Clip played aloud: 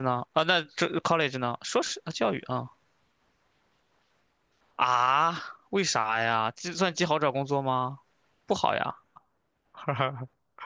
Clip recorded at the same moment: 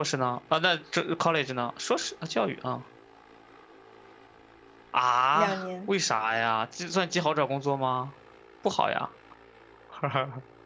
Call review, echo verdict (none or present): present